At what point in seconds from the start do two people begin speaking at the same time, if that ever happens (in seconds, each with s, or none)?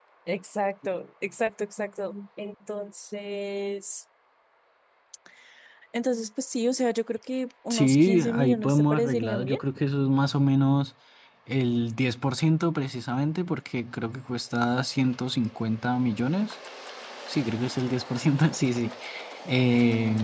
7.7 s